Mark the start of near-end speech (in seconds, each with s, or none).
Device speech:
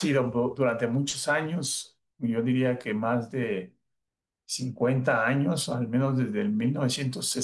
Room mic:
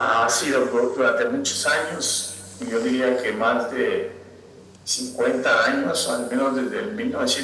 none